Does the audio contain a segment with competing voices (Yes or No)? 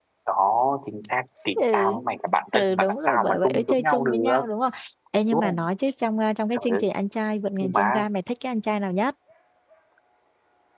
Yes